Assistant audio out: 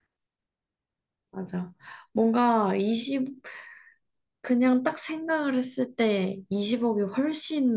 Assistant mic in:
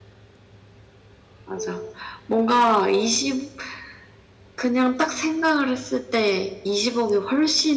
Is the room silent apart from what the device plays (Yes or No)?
No